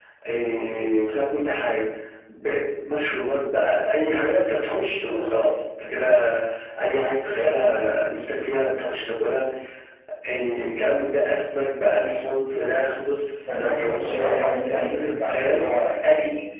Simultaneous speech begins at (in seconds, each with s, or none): 13.4 s